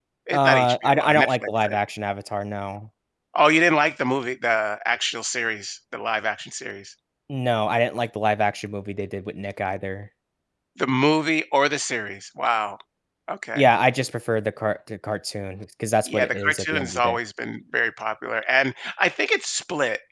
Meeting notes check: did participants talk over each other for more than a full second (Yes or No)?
Yes